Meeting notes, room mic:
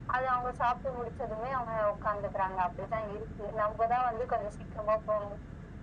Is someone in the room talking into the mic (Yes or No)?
No